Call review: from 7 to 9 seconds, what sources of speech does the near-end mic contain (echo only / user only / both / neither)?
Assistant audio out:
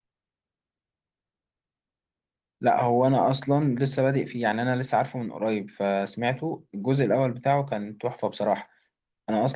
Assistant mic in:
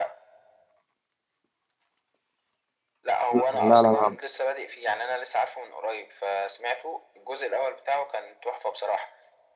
echo only